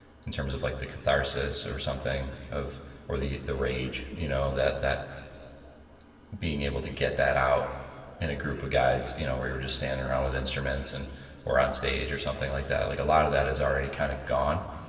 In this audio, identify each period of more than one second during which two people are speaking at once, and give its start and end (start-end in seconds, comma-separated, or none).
none